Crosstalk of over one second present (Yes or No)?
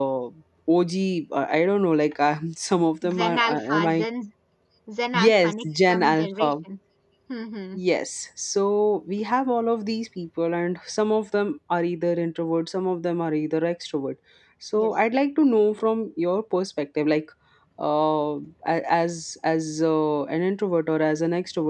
Yes